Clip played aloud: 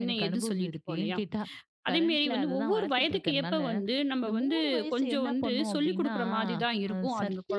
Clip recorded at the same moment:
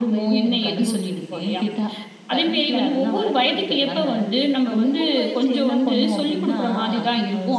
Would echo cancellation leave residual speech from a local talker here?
No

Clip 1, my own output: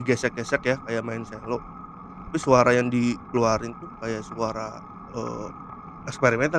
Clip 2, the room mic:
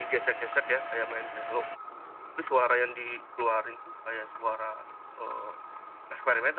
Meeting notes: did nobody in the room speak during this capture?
Yes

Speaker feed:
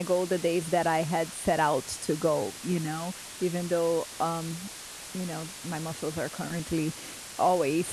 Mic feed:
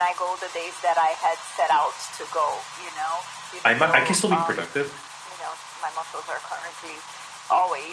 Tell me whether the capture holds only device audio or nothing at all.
No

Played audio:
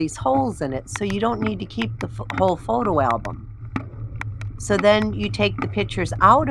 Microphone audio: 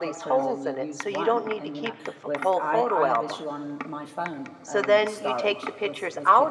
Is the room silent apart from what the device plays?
No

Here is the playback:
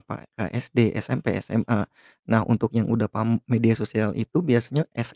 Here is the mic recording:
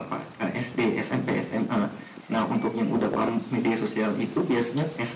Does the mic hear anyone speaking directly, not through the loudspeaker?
No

